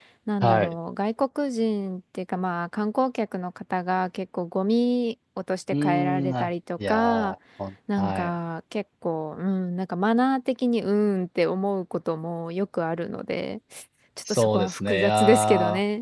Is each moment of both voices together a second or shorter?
No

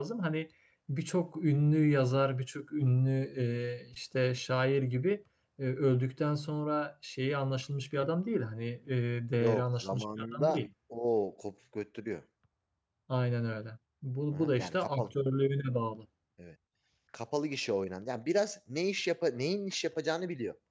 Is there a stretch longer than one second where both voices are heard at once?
Yes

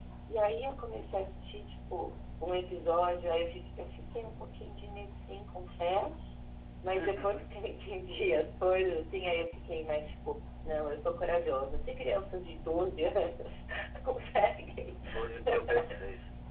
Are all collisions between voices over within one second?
Yes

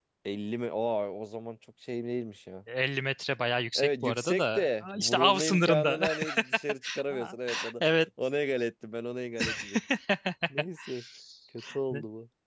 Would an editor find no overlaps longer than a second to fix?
No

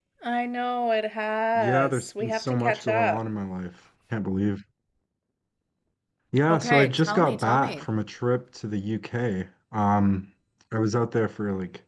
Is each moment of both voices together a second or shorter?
No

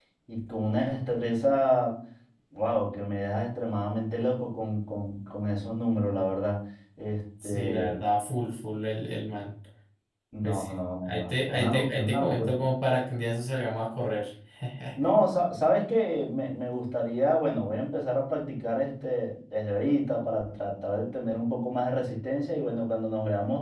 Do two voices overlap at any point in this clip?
Yes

